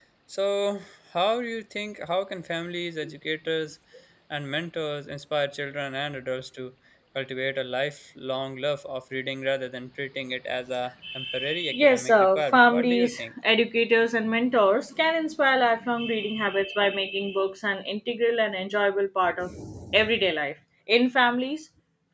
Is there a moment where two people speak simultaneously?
Yes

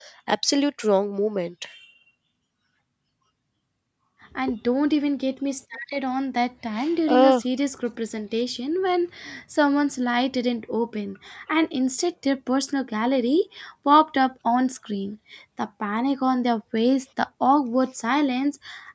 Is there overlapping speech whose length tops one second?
No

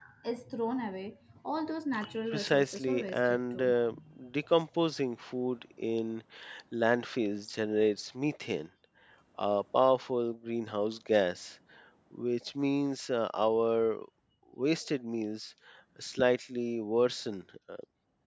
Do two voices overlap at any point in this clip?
Yes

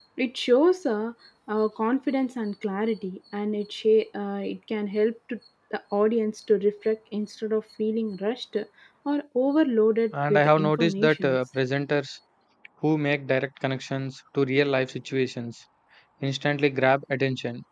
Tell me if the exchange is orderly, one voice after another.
No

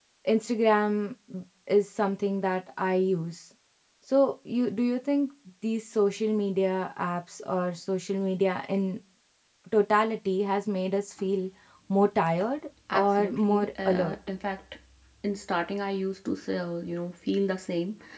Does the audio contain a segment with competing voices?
Yes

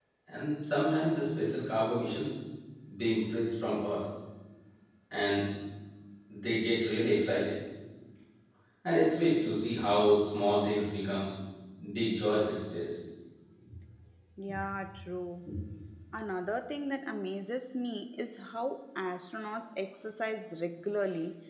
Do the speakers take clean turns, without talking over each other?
Yes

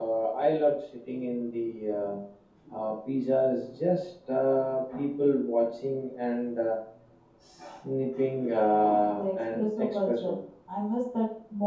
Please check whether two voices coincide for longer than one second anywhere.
Yes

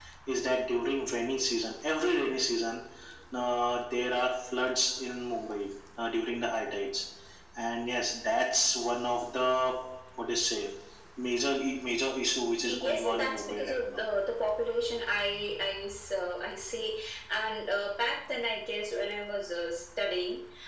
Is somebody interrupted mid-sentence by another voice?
Yes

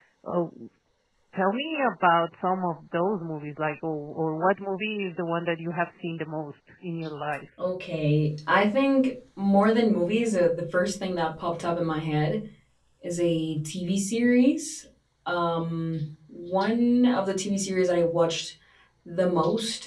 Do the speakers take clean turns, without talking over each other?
Yes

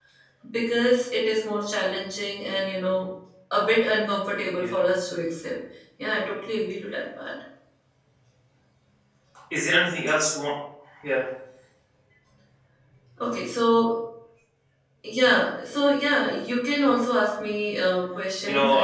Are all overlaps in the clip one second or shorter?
Yes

